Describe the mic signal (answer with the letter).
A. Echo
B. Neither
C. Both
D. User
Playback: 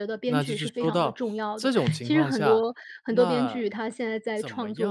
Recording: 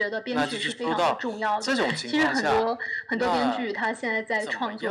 A